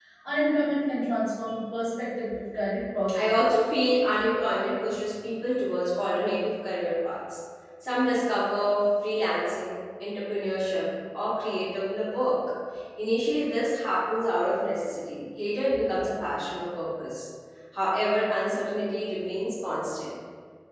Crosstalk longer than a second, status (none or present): none